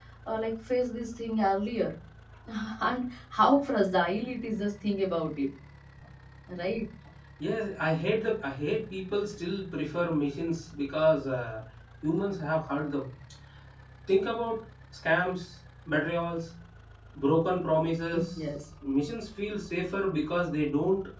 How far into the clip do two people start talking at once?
none

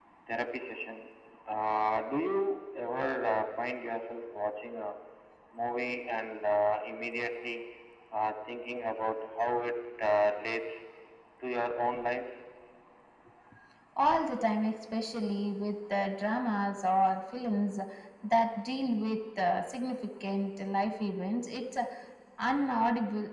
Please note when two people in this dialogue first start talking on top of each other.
none

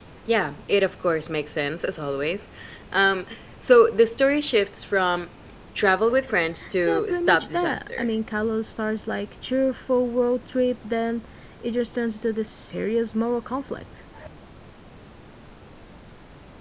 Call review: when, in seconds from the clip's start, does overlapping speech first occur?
6.9 s

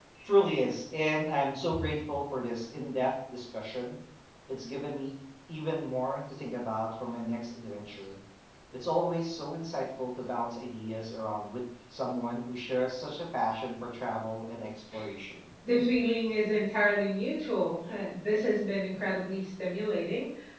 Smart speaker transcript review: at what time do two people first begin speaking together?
none

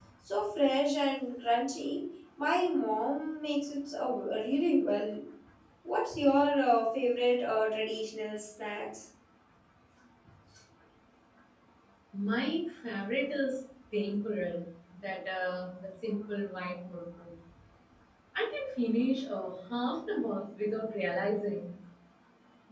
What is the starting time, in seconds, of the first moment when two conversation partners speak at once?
none

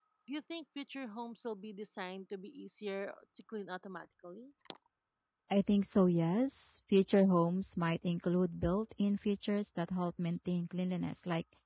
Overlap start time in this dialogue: none

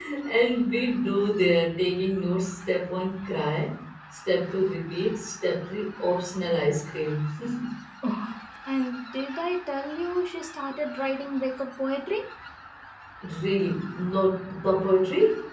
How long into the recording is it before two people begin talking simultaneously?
none

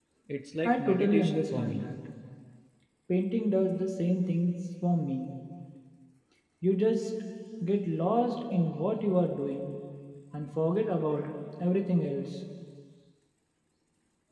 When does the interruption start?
0.7 s

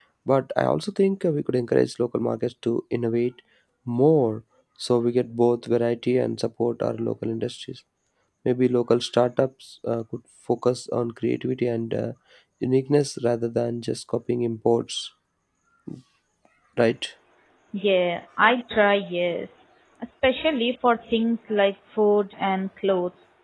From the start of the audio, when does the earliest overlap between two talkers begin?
none

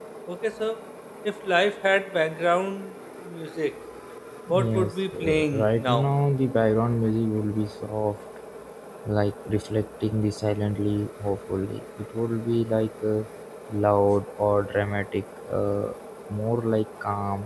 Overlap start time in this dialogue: 4.5 s

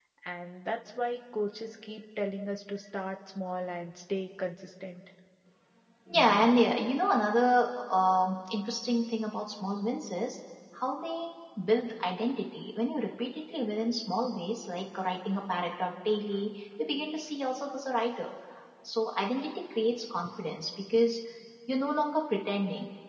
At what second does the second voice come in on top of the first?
none

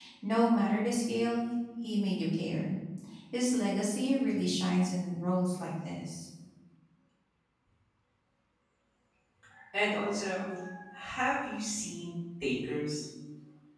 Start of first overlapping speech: none

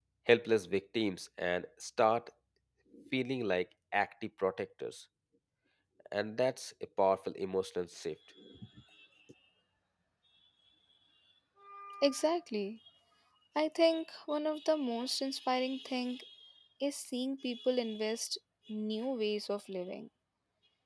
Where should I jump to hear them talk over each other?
none

